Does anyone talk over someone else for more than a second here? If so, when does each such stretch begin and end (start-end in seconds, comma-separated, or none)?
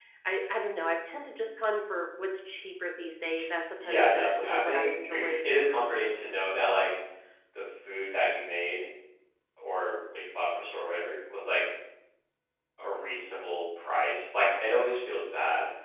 3.8-5.4